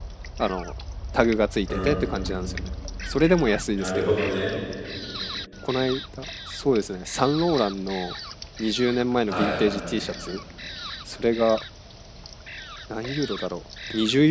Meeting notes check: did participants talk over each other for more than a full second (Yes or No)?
No